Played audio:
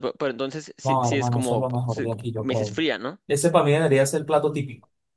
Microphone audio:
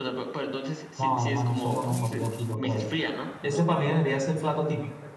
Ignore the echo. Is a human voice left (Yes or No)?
Yes